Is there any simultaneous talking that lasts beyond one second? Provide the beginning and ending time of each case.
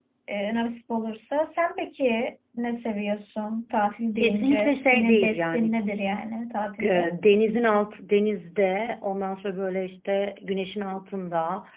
4.2-5.8

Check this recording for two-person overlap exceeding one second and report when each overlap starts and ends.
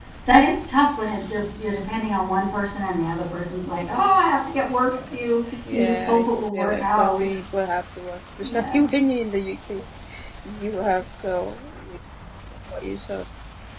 5.7-7.3

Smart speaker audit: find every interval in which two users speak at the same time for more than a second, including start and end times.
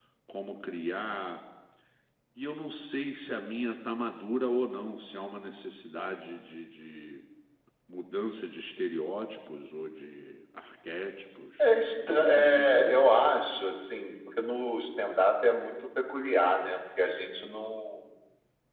11.6-13.2

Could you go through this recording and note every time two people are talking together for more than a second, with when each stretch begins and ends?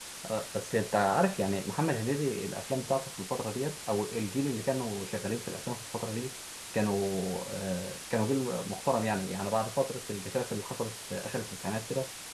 none

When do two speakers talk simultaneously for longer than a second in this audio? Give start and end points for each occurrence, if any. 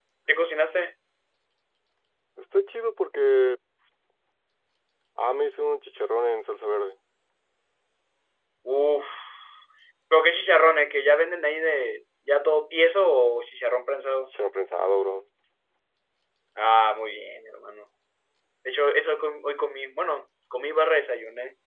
none

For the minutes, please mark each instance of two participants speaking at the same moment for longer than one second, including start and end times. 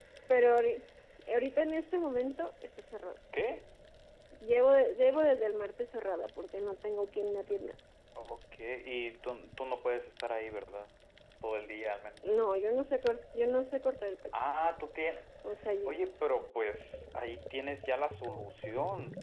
none

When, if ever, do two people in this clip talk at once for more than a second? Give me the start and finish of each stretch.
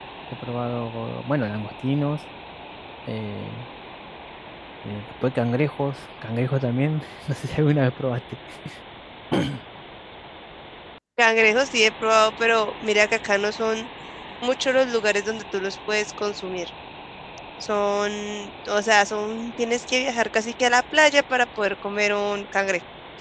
none

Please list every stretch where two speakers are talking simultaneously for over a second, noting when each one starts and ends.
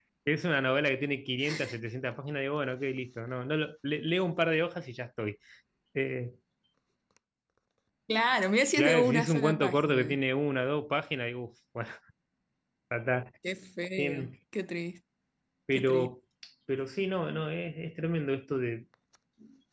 8.8-10.2

